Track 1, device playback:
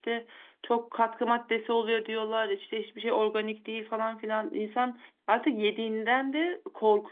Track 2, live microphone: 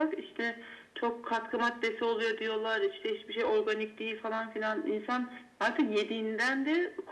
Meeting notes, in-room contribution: none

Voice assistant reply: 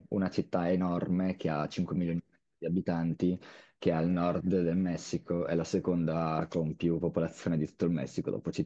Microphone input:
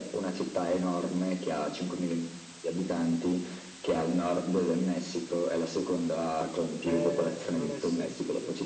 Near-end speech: present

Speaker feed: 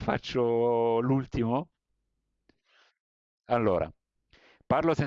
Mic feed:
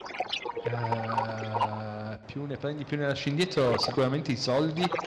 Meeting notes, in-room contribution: present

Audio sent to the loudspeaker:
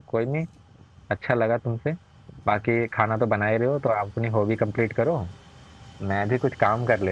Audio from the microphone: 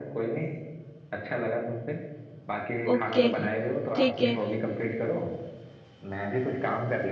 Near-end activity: present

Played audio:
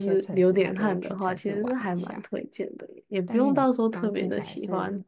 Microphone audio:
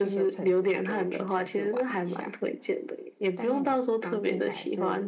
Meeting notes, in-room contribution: none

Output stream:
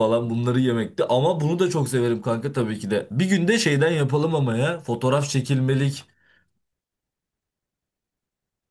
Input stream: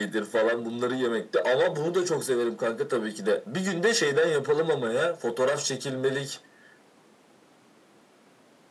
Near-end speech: none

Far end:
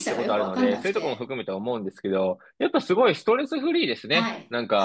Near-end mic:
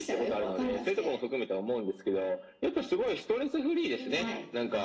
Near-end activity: present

